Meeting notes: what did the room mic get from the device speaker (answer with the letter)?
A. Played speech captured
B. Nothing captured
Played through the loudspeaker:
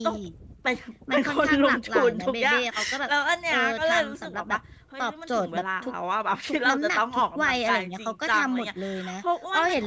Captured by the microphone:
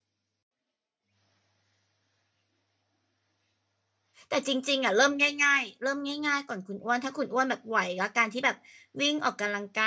B